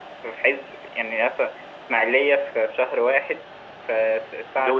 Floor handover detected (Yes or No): No